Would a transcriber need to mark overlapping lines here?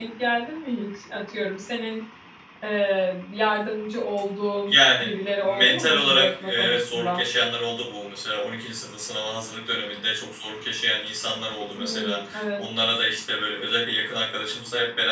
Yes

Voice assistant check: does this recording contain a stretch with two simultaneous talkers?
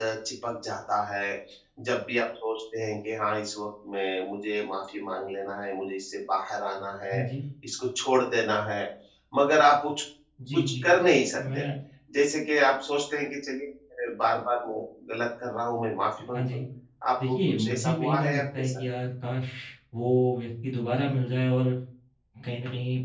Yes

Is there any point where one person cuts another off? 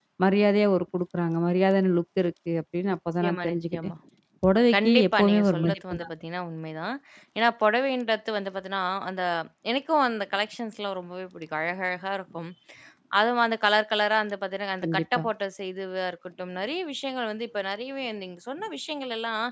Yes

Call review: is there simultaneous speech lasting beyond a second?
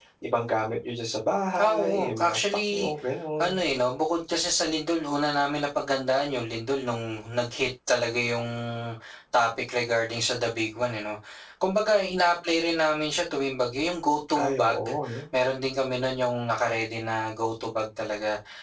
Yes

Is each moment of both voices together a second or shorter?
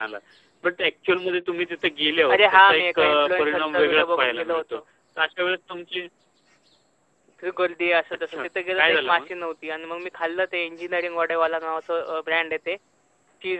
No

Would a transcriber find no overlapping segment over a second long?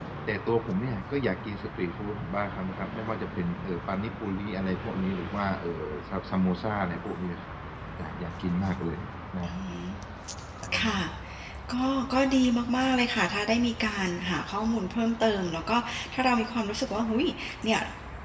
Yes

